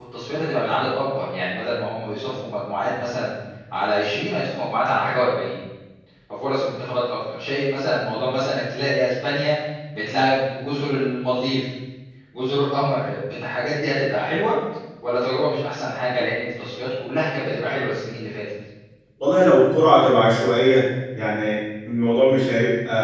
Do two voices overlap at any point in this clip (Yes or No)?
No